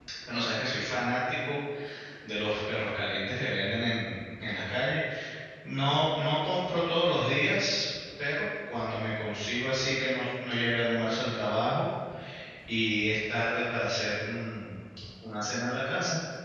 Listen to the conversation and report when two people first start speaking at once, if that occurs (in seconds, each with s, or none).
none